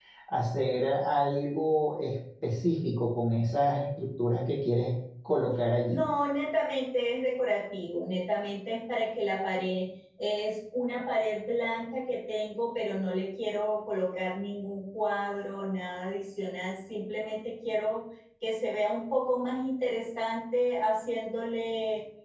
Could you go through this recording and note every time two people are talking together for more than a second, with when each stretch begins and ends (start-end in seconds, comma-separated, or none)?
none